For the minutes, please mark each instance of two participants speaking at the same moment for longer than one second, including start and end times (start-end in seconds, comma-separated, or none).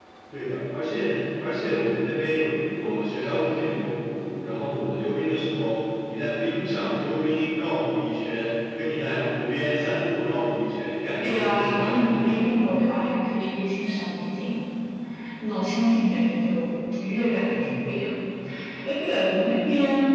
11.2-12.5